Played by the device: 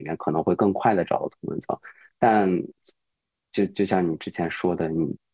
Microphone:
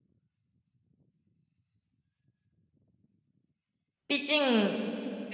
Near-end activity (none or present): present